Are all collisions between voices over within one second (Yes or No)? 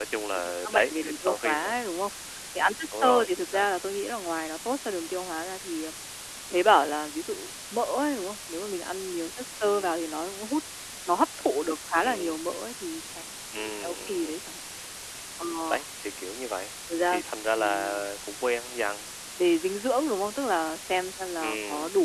No